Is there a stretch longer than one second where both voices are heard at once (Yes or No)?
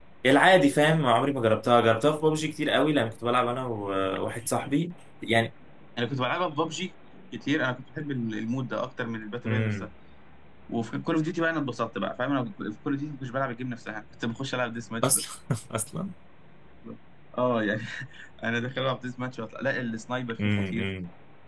No